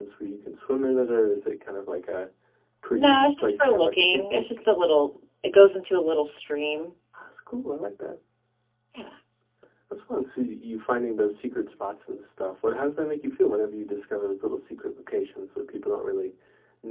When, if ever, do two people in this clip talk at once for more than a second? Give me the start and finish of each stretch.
2.9-4.7

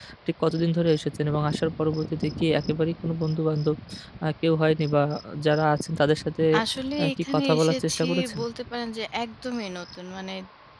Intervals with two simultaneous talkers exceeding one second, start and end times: 7.0-8.4

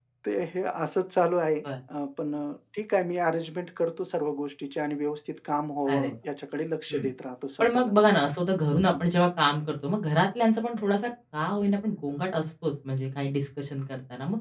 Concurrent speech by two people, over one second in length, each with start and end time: none

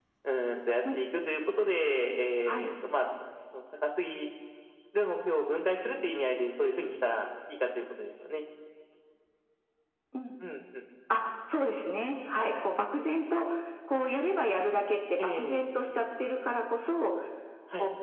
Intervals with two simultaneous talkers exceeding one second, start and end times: none

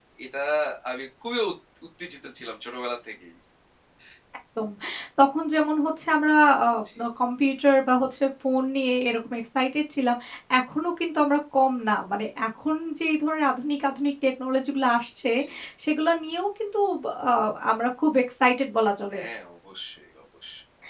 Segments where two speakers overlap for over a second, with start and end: none

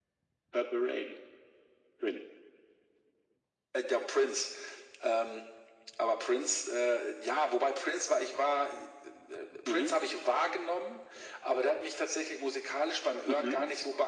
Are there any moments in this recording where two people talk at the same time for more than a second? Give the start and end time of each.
none

